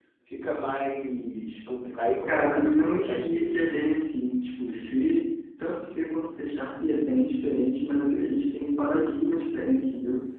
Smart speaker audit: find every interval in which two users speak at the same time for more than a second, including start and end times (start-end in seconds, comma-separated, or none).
2.3-3.6